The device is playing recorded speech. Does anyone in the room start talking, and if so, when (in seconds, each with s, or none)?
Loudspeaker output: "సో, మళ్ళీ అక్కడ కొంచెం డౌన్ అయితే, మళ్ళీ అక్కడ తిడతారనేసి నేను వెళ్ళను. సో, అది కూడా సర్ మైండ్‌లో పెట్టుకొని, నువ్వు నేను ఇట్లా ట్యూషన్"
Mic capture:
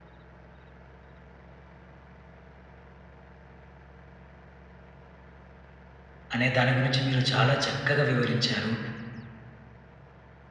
6.3 s